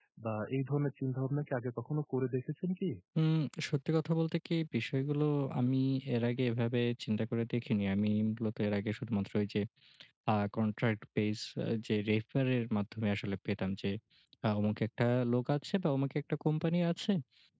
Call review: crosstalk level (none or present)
none